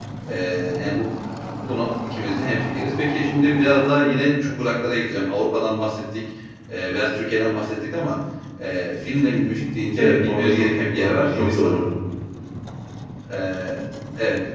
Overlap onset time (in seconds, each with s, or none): 10.0 s